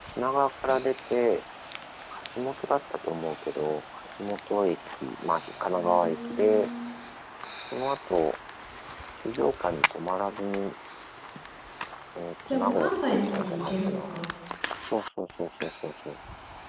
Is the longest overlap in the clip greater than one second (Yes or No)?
Yes